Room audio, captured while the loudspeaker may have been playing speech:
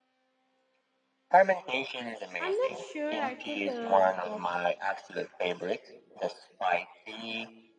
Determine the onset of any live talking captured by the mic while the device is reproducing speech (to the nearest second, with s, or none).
2 s